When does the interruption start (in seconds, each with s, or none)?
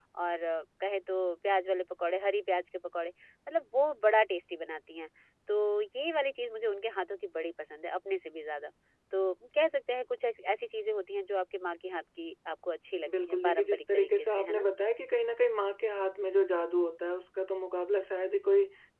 13.1 s